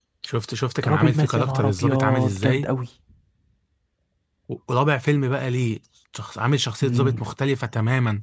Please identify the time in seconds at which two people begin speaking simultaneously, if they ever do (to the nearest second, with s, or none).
1 s